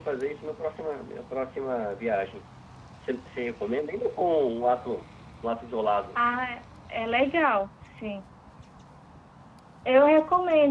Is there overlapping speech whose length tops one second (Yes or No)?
No